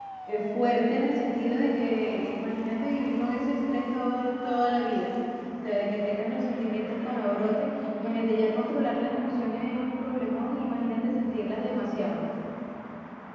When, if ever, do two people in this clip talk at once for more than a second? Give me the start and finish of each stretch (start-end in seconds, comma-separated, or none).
none